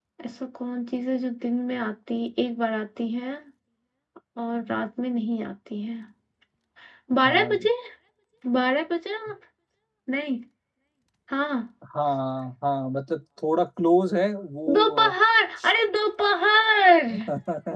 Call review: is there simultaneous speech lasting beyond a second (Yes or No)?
No